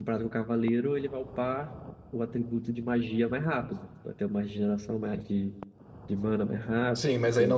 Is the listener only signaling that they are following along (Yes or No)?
No